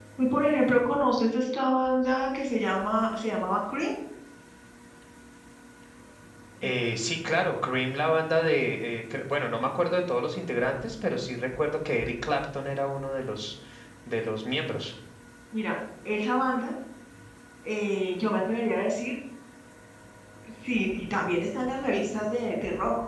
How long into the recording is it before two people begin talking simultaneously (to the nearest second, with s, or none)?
none